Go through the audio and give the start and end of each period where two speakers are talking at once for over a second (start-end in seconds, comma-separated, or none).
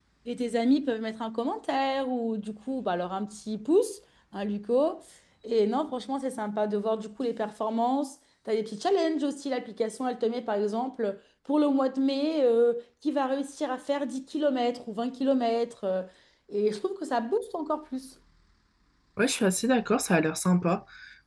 none